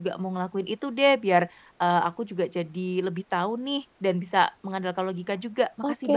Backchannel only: No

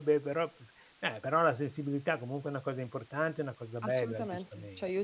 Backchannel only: No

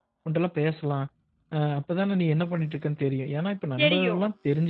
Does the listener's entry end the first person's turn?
No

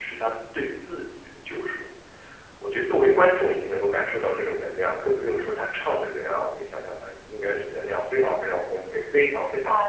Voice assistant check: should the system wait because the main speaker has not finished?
No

